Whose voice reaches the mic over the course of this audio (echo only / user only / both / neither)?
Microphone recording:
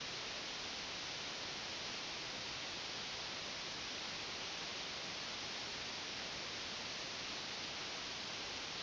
neither